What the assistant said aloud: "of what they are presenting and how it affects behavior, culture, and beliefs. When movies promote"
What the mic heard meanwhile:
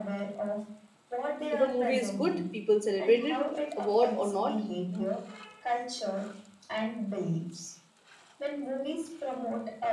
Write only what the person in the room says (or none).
If a movie is good, people celebrate it, award or not.